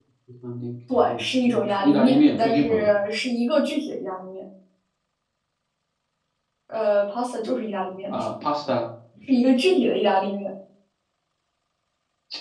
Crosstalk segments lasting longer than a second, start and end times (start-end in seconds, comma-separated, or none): 1.1-2.9